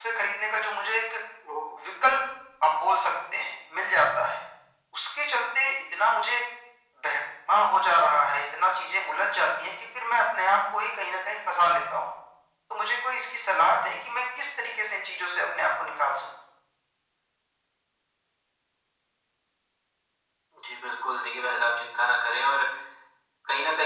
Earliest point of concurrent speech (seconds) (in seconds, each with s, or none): none